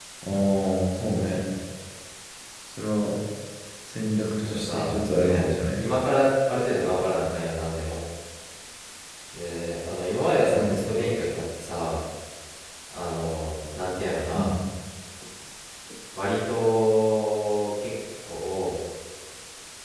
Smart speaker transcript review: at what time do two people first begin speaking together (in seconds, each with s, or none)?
4.4 s